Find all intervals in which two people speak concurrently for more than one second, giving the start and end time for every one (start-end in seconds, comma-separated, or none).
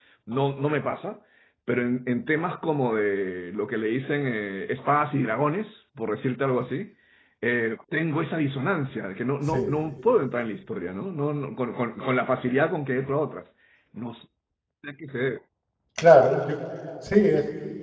none